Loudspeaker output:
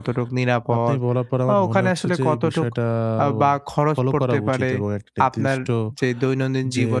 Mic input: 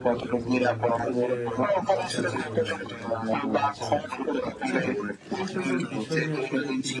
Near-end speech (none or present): present